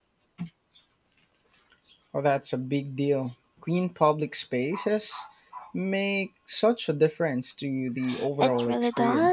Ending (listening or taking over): taking over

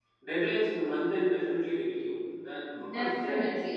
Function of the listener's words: taking over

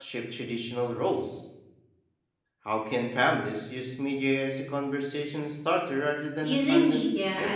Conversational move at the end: taking over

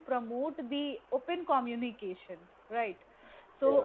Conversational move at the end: listening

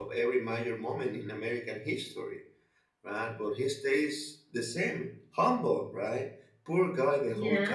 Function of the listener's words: listening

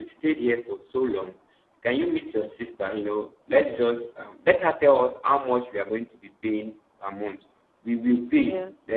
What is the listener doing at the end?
listening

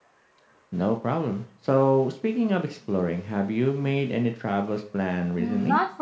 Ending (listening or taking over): taking over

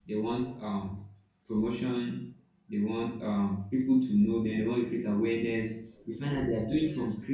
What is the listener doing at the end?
listening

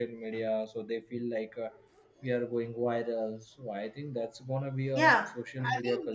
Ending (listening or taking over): taking over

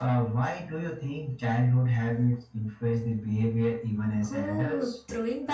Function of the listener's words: taking over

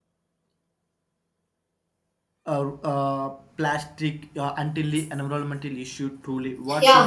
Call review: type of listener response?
taking over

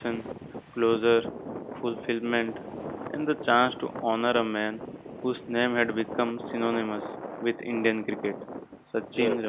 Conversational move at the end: listening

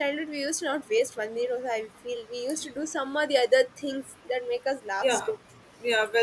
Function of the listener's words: taking over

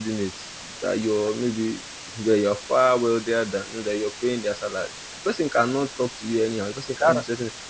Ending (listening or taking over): listening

